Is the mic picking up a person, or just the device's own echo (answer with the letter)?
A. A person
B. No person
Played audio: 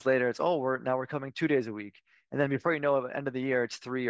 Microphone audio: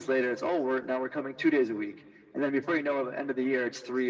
B